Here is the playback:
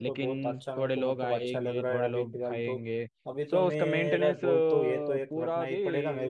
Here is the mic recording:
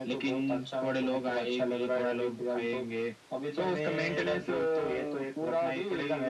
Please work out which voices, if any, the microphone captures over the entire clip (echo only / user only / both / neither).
echo only